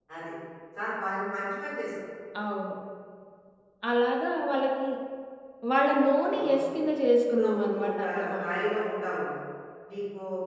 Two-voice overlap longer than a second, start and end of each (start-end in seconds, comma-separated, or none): 7.3-8.7